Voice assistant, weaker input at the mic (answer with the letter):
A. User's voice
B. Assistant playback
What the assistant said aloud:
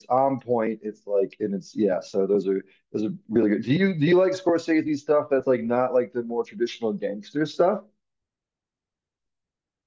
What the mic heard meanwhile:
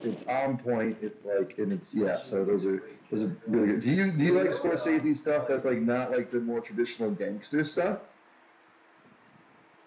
A